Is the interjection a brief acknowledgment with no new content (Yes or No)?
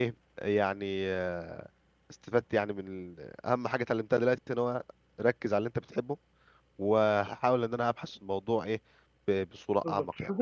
No